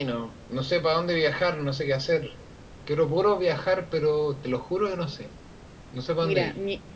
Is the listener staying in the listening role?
No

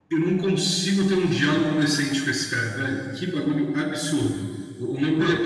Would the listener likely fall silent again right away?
Yes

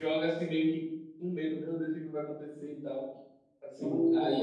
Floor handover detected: No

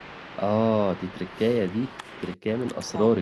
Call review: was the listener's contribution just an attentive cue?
Yes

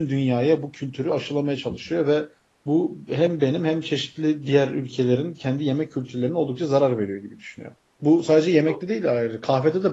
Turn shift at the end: No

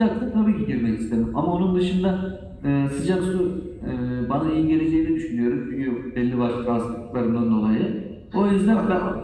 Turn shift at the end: No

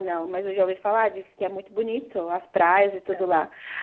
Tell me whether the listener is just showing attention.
Yes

